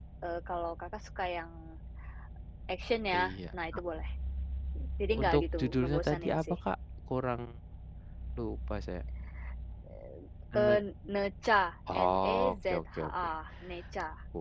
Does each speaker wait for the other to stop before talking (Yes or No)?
No